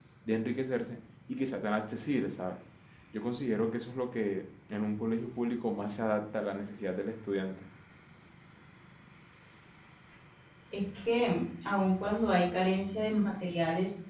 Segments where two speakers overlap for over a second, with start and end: none

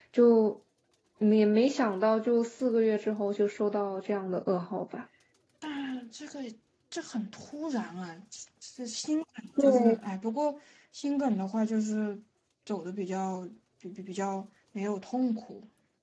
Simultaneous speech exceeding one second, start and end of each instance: none

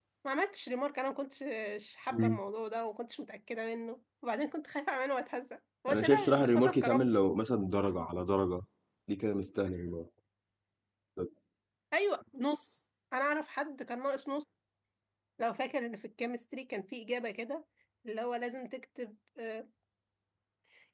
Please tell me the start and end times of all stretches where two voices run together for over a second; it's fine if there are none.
5.9-7.2

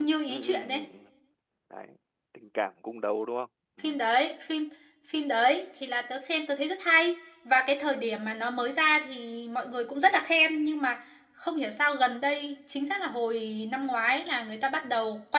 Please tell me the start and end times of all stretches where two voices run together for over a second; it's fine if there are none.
none

